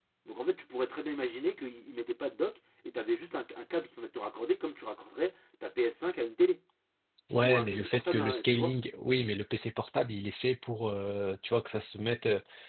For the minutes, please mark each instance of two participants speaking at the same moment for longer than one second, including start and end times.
7.4-8.8

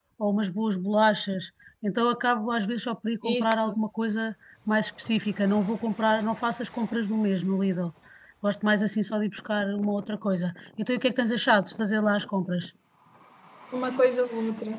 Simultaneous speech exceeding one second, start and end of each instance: none

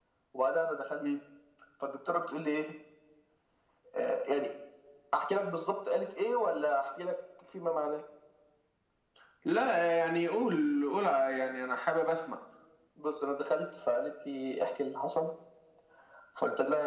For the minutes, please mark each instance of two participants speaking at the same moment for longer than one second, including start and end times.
none

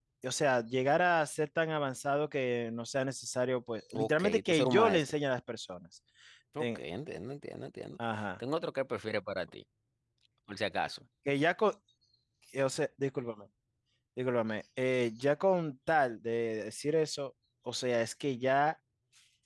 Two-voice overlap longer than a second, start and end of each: 3.9-5.1

